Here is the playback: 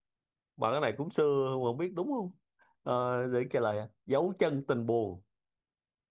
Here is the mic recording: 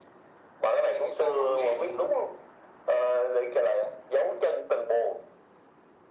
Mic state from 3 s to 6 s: echo only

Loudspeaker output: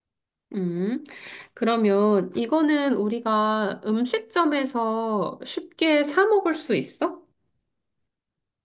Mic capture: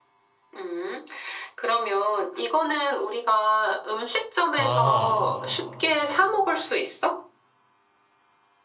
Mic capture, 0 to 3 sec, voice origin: echo only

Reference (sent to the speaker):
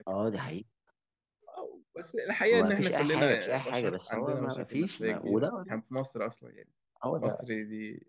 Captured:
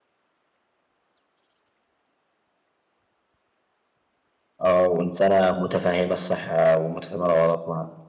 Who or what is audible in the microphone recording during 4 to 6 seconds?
user only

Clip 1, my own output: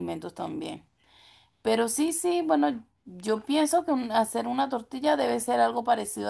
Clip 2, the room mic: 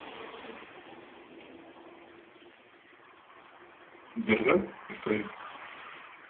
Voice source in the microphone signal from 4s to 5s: user only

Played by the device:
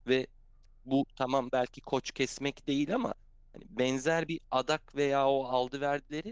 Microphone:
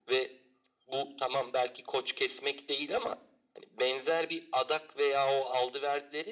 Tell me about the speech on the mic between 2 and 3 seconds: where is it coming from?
echo only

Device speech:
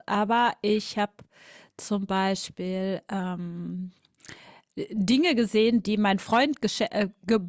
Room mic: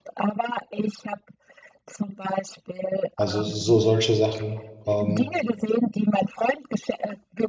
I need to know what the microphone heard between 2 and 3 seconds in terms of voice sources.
echo only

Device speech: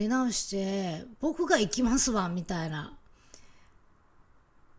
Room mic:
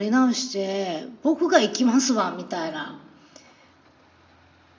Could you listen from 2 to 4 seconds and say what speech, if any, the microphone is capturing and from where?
echo only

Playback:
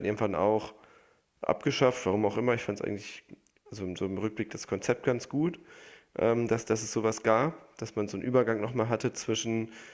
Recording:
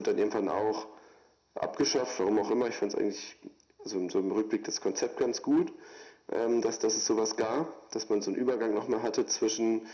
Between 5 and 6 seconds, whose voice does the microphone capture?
echo only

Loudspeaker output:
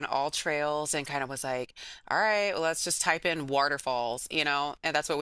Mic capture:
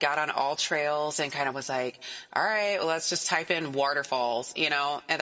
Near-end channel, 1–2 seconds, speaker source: echo only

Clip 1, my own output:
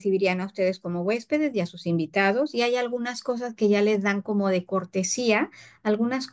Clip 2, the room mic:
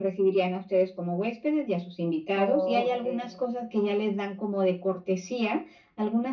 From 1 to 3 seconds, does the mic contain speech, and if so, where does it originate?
both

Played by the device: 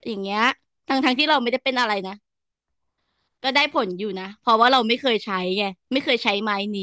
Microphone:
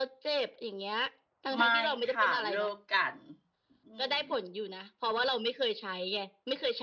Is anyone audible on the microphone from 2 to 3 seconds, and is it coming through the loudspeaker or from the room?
both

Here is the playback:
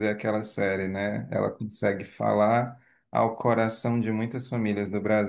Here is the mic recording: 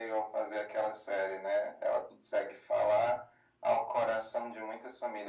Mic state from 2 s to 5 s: echo only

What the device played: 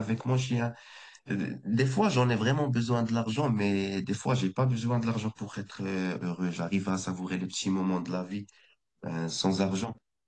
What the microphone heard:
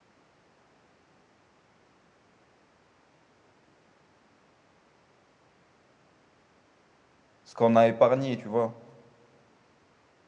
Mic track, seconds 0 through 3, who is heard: neither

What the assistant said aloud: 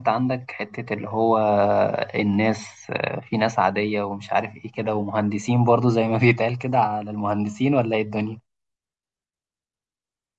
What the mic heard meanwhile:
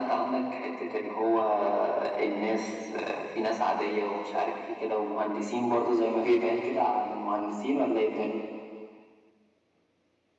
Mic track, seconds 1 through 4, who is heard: echo only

